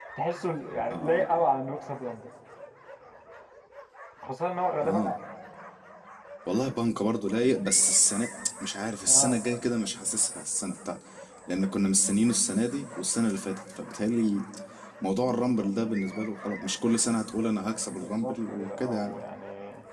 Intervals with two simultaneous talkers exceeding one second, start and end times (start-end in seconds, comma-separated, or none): 17.9-19.2